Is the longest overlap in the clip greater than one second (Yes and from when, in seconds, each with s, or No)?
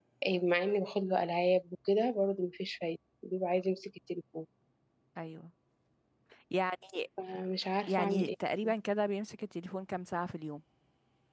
No